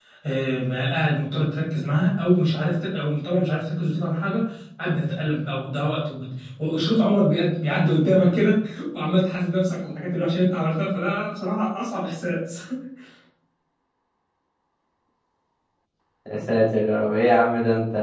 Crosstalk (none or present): none